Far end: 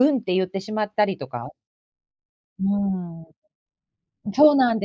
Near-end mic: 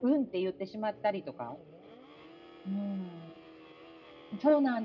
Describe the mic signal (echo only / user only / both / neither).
echo only